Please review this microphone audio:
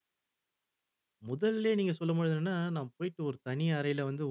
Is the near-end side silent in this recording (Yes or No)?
No